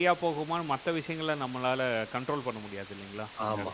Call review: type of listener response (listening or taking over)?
taking over